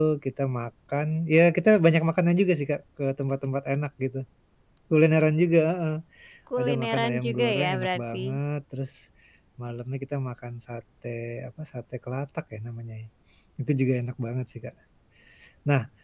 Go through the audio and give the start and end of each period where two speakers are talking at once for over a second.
6.6-8.2

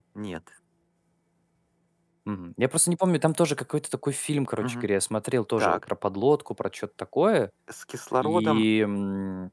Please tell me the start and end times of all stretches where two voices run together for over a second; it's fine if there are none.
none

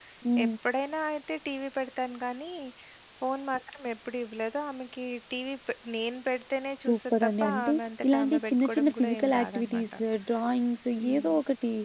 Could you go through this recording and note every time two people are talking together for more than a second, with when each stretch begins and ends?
6.9-9.8

